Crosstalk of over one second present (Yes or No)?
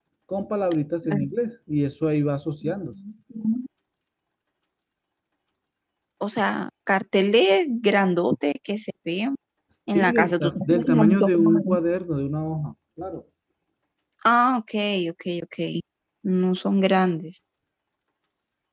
Yes